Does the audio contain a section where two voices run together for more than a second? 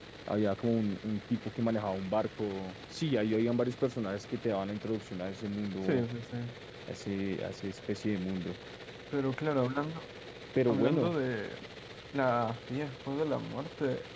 No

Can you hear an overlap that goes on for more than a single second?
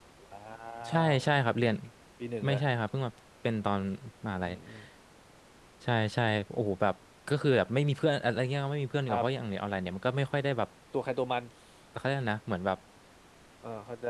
No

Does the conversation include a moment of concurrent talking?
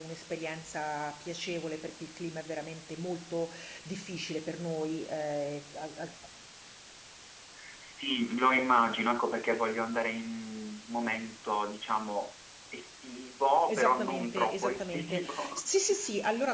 Yes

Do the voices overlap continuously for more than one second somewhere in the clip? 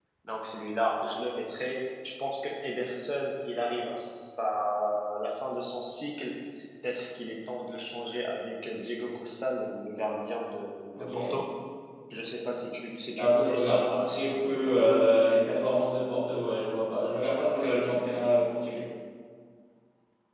Yes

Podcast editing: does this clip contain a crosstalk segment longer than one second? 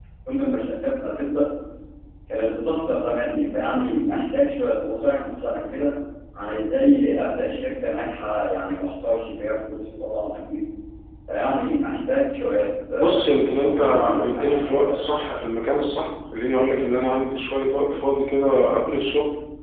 Yes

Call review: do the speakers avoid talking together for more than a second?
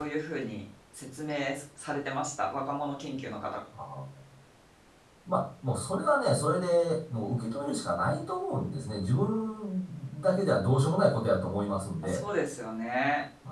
Yes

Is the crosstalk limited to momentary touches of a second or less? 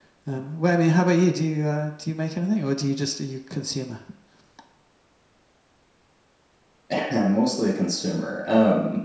Yes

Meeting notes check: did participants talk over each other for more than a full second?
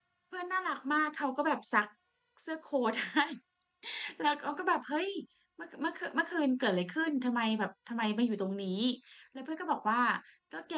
No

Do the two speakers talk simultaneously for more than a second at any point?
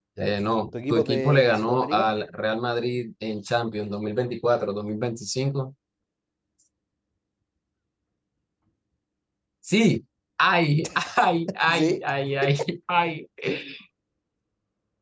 Yes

